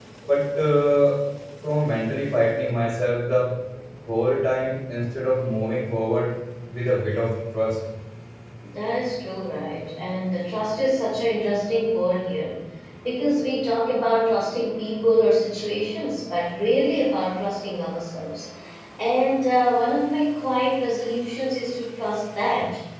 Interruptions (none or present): none